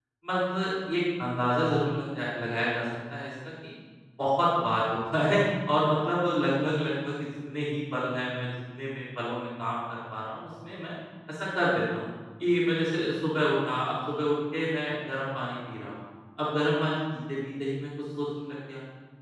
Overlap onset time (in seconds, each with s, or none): none